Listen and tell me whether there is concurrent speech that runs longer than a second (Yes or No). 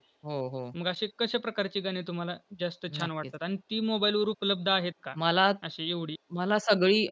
No